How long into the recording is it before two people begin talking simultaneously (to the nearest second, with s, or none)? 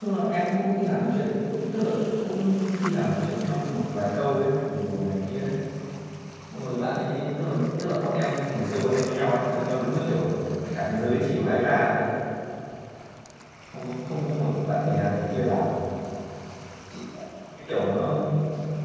none